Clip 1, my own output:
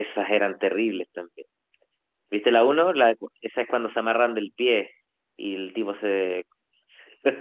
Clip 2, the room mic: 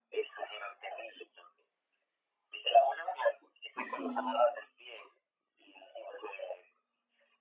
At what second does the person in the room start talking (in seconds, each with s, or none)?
3.8 s